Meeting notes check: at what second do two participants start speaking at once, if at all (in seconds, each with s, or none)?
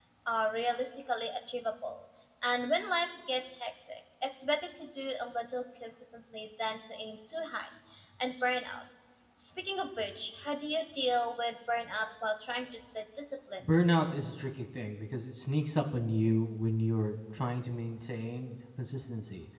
none